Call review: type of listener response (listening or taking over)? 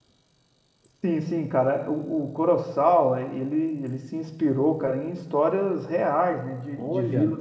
listening